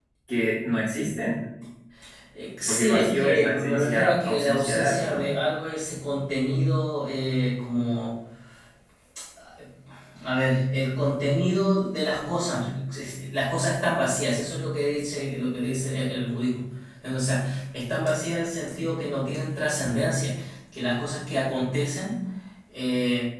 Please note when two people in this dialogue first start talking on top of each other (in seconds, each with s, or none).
2.7 s